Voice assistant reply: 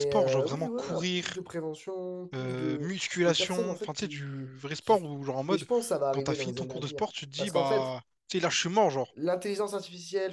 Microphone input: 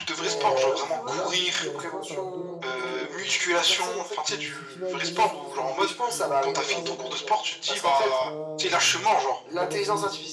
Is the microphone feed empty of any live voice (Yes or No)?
No